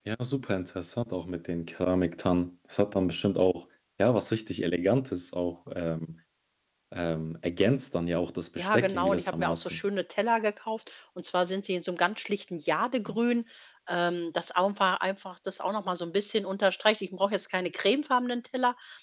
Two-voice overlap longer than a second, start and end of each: 8.6-9.8

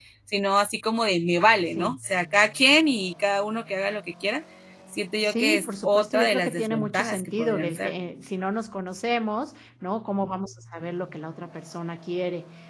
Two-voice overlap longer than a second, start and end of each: 5.2-7.9

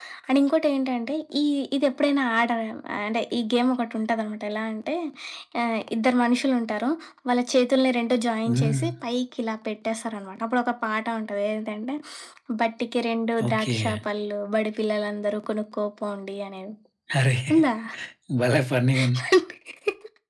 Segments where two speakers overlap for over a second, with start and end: none

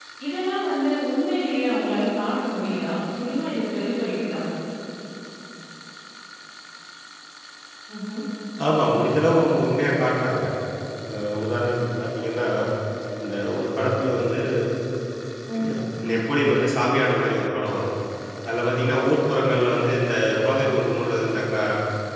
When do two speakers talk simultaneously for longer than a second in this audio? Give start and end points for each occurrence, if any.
none

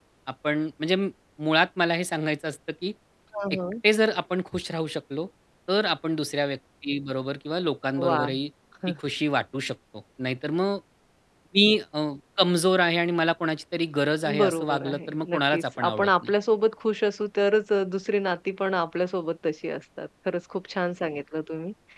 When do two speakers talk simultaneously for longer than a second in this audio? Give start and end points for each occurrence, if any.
14.4-16.3

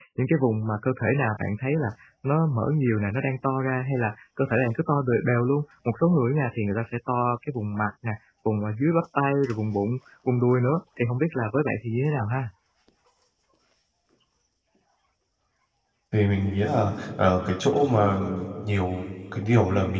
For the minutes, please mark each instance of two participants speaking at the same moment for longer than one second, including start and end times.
none

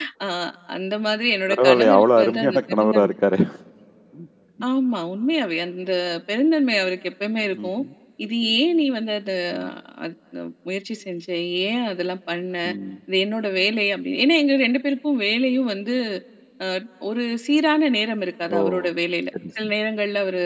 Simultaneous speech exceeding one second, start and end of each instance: 1.5-3.2

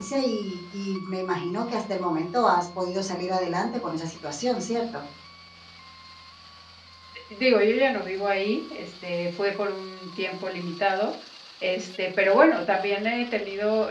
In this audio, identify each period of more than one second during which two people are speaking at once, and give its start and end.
none

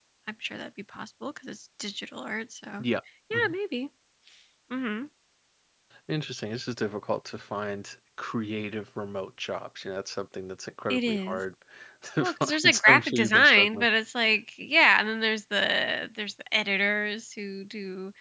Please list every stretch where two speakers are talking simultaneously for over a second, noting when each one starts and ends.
12.2-13.9

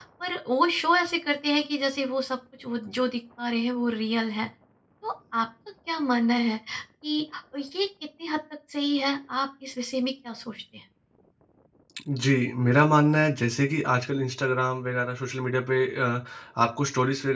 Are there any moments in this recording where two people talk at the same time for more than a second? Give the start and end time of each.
none

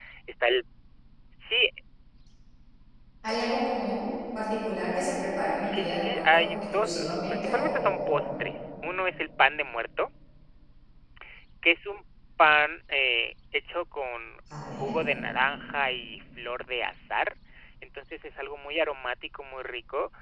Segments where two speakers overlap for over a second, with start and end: 5.7-8.3

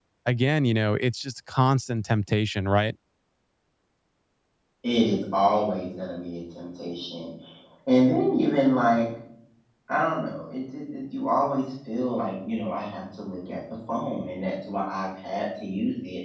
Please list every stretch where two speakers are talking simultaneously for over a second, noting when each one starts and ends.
none

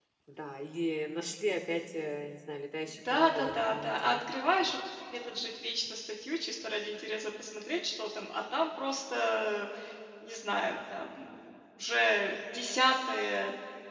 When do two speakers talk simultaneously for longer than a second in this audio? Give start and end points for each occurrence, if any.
2.9-4.2

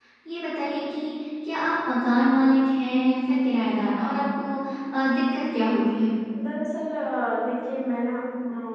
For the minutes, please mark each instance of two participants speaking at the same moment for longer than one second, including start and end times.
none

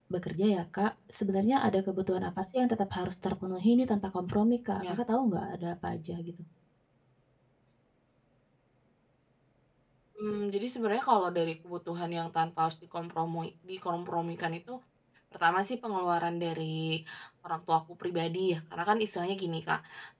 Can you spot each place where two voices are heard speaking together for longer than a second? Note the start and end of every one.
none

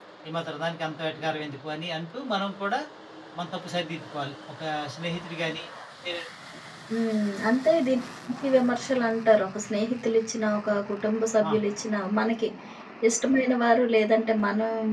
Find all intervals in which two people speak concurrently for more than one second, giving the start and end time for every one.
none

